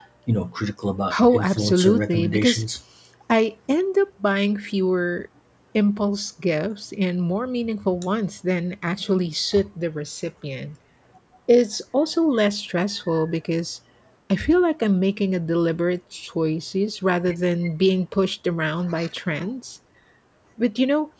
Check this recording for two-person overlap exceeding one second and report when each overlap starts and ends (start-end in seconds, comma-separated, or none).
1.3-2.6